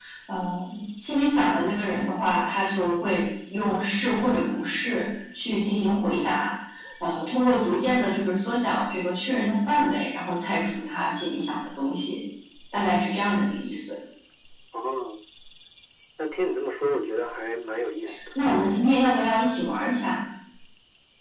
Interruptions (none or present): none